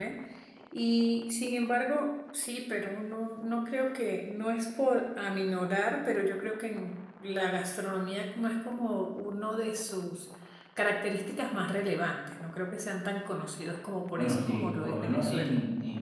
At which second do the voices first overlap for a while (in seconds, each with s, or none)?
14.2 s